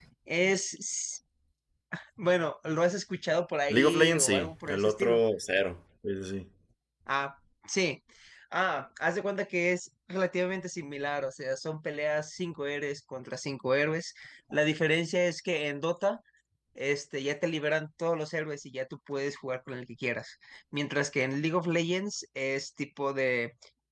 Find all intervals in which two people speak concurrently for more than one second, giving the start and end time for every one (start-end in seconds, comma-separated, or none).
3.7-5.2